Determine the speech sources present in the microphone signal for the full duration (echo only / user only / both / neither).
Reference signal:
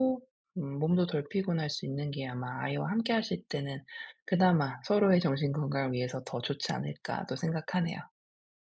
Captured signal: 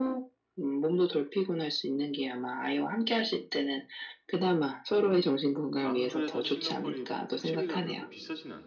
both